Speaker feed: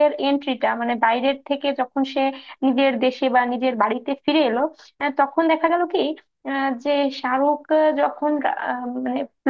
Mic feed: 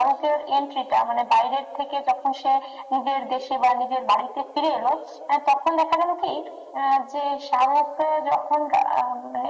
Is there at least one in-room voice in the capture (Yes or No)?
No